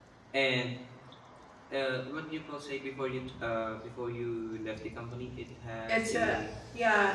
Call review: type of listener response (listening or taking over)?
taking over